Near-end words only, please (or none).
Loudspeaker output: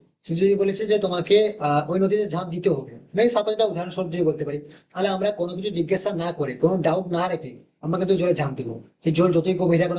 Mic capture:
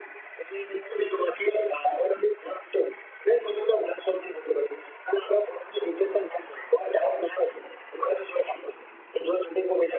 none